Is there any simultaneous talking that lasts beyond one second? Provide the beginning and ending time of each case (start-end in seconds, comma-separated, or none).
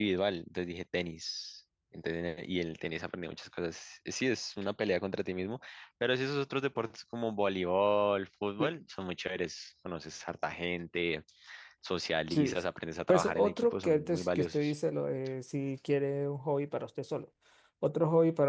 13.1-14.7